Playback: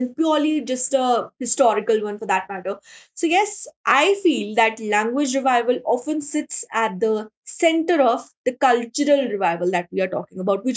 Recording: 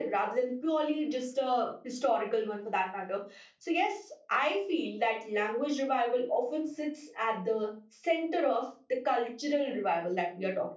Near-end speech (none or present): none